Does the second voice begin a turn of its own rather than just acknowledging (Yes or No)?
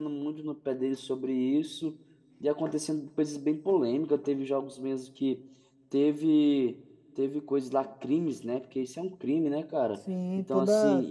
Yes